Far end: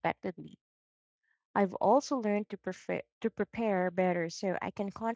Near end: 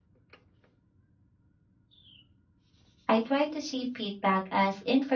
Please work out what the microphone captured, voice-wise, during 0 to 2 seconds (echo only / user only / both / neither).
neither